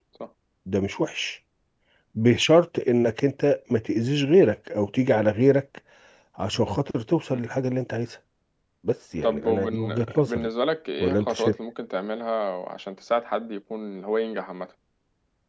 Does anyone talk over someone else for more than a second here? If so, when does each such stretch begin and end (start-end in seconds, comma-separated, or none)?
9.2-10.5